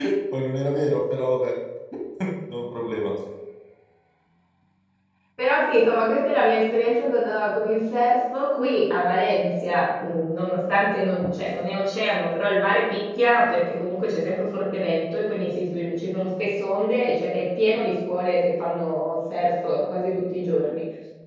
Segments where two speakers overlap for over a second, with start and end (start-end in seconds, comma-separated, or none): none